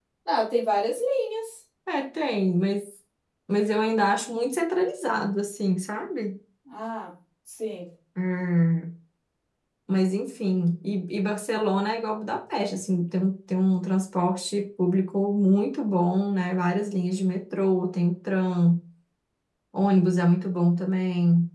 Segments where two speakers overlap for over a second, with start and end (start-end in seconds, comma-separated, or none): none